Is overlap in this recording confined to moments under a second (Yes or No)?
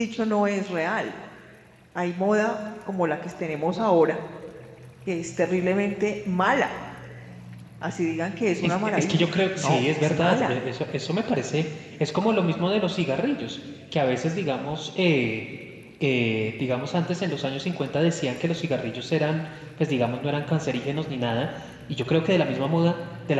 No